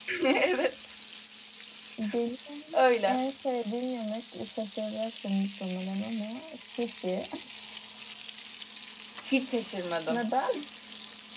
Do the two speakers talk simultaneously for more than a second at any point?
No

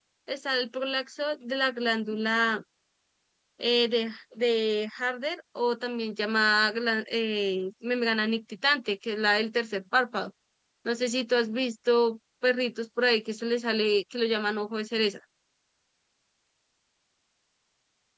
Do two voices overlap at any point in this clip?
No

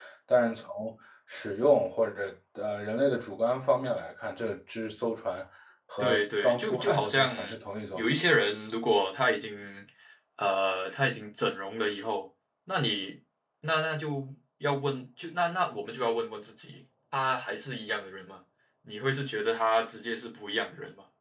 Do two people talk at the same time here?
Yes, from 6.0 s

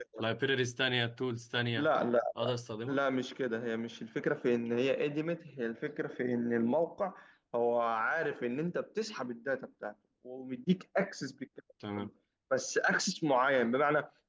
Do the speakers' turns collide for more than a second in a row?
No

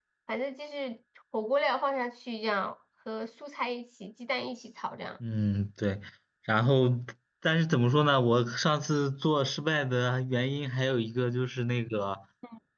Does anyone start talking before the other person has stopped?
No

